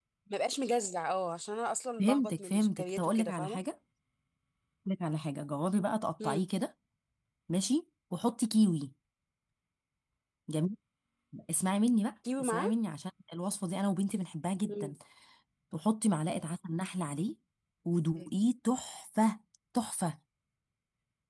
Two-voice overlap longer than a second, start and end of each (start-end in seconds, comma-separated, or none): 2.0-3.6